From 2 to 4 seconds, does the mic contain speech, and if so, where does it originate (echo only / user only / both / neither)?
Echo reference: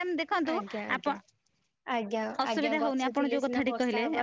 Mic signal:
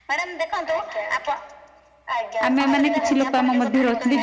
both